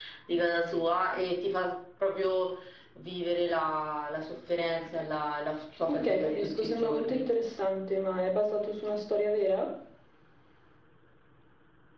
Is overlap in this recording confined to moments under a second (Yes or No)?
No